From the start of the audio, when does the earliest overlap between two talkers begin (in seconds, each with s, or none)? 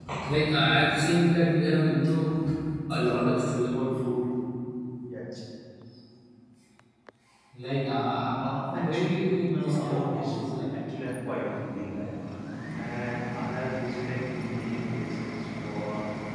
8.3 s